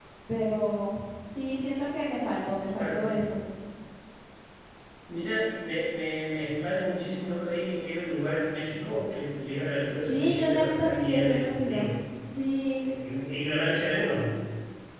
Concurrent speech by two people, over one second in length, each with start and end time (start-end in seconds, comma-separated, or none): 9.9-12.0